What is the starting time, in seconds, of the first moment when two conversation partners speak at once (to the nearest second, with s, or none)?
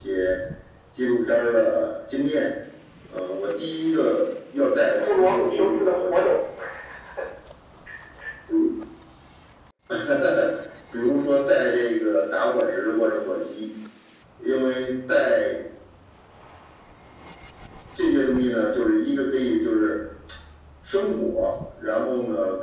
5 s